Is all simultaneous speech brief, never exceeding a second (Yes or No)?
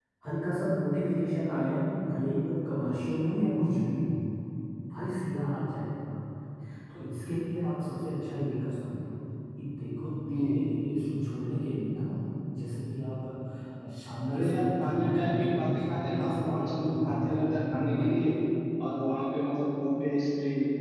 No